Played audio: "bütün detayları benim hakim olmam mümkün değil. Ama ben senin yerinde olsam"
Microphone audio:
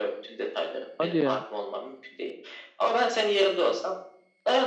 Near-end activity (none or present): present